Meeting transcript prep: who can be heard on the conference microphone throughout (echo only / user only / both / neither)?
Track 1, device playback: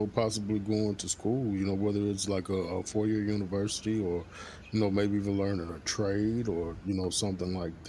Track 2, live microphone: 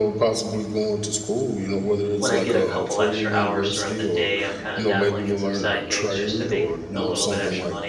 both